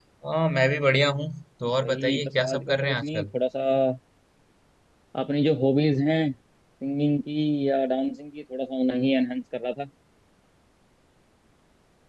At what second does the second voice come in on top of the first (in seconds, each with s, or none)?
1.8 s